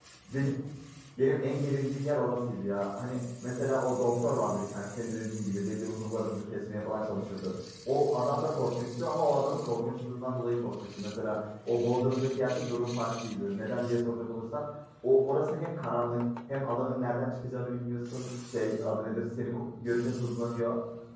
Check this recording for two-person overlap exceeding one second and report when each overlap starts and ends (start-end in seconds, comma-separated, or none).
none